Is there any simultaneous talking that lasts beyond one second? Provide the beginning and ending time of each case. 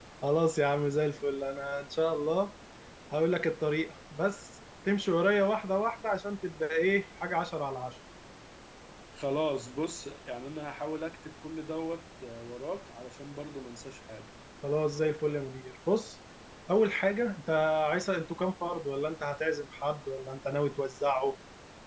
none

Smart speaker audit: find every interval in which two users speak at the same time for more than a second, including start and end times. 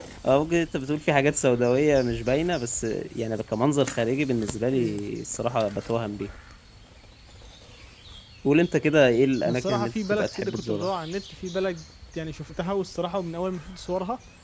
9.4-10.9

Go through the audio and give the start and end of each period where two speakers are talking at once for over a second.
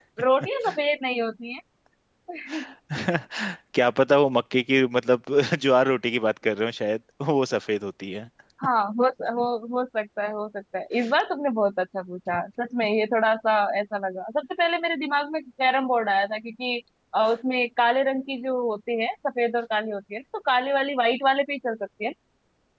none

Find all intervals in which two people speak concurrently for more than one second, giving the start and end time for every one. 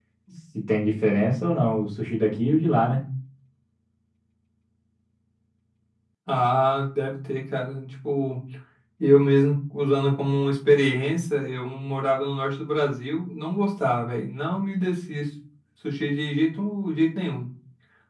none

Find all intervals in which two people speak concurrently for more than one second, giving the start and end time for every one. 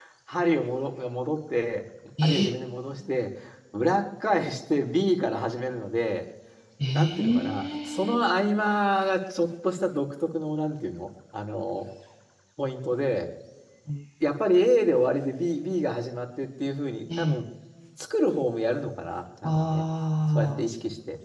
6.9-8.2

